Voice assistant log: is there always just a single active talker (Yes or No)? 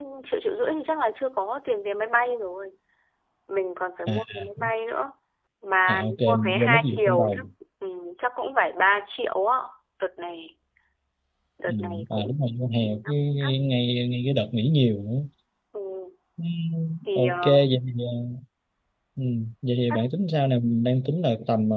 No